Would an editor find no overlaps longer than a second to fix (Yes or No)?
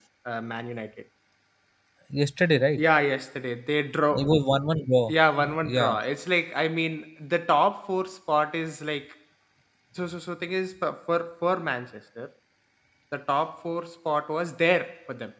Yes